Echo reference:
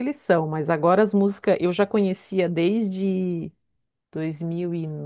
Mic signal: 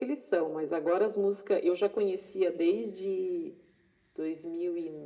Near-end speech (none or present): none